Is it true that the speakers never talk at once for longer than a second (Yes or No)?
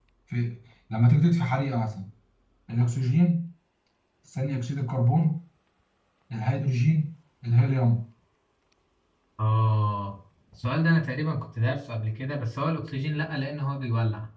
Yes